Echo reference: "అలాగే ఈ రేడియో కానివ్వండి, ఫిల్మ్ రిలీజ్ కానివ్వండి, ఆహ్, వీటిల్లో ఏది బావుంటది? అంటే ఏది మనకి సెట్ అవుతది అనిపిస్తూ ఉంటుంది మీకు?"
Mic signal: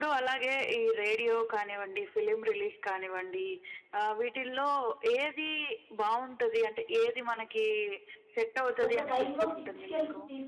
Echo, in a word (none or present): present